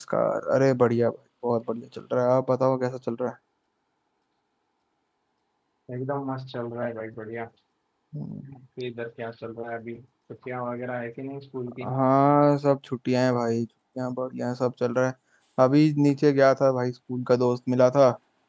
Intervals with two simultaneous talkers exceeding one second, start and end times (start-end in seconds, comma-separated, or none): none